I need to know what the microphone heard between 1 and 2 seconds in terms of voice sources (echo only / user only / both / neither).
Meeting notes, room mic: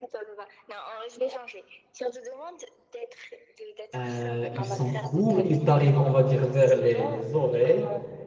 echo only